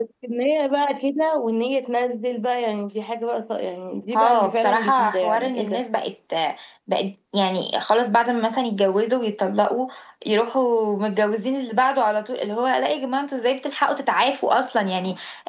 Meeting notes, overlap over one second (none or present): present